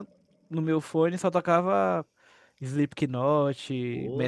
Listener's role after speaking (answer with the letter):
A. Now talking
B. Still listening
A